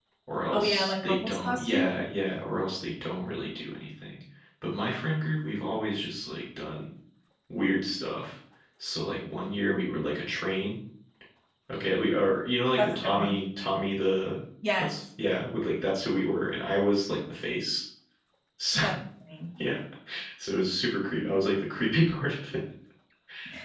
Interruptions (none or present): present